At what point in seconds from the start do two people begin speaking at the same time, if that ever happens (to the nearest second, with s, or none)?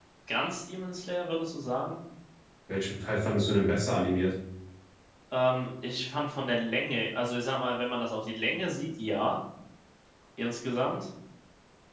none